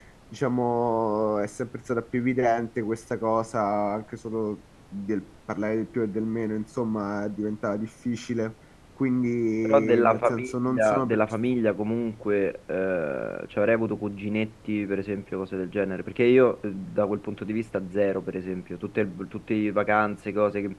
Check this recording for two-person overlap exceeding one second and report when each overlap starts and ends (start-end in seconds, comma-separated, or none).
9.6-11.2